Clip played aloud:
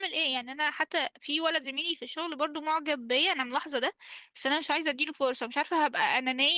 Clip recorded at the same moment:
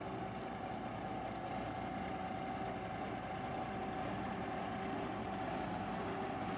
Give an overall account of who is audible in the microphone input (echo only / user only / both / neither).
neither